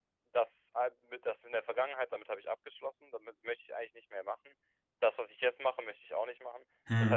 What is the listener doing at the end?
listening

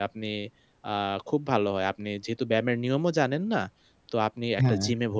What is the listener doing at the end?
listening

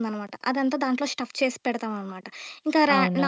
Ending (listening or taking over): listening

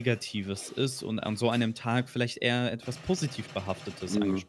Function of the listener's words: taking over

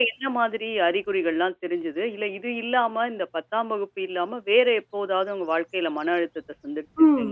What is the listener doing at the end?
taking over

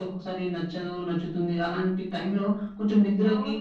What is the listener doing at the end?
taking over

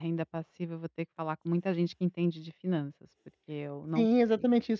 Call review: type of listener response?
taking over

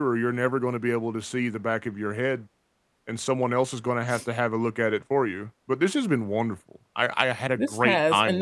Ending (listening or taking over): taking over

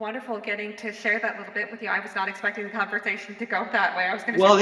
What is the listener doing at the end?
taking over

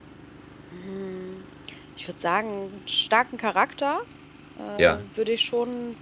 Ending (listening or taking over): listening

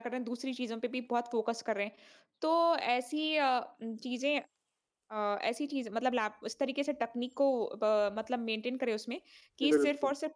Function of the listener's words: listening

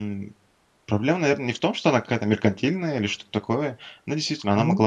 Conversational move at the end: listening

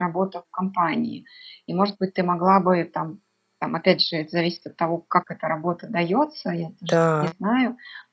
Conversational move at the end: listening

